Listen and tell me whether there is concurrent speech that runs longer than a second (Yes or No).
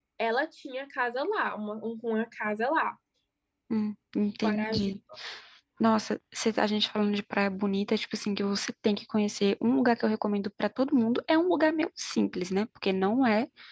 No